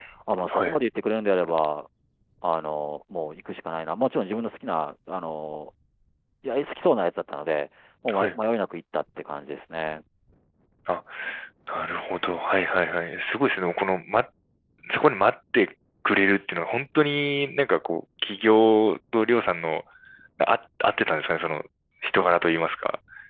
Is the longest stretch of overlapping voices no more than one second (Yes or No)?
Yes